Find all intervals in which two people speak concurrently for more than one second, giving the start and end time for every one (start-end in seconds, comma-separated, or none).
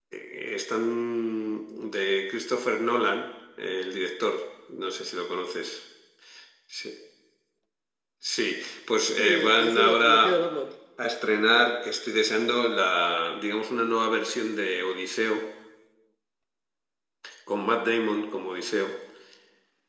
9.2-10.4